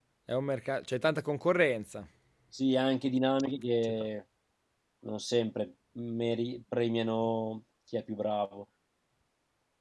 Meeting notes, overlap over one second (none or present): none